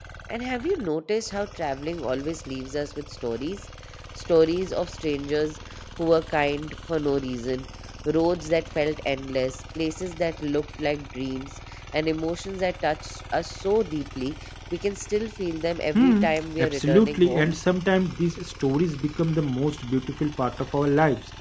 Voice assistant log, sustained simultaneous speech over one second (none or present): present